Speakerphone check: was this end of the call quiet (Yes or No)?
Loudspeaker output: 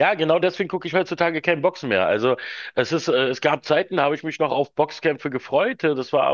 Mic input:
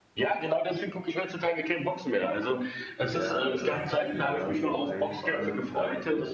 No